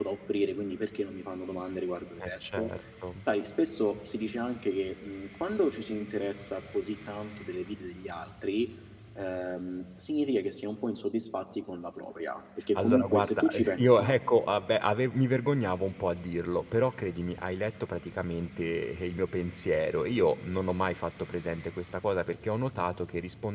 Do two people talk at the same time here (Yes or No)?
Yes